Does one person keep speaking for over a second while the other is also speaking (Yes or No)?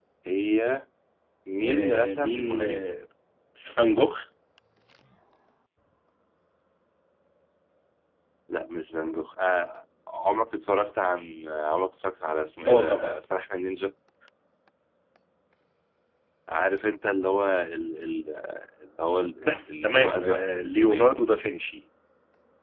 Yes